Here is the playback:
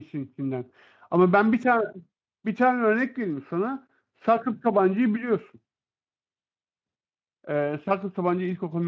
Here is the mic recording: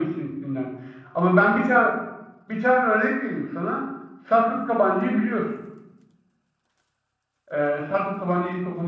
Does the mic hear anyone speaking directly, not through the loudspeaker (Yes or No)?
No